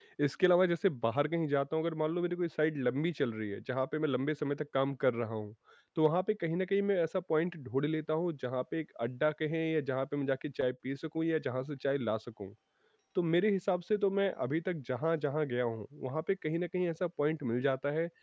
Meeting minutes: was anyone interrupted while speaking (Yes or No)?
No